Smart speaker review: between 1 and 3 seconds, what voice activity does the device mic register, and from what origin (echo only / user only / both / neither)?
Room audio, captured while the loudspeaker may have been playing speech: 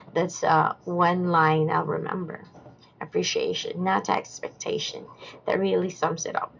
echo only